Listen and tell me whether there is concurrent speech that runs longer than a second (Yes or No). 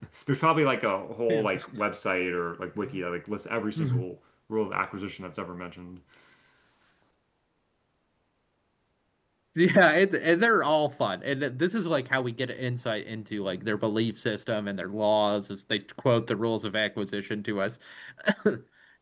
No